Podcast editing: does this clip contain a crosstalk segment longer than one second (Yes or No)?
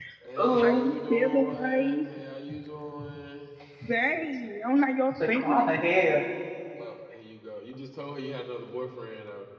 Yes